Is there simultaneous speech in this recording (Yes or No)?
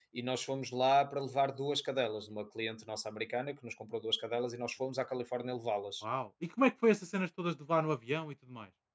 No